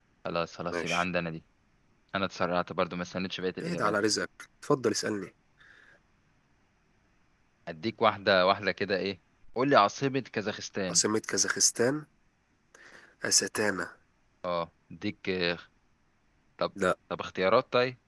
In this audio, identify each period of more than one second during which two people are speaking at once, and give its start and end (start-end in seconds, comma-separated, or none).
none